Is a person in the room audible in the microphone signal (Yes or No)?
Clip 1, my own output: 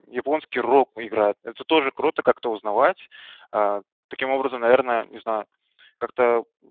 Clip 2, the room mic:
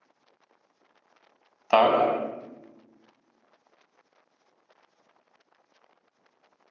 Yes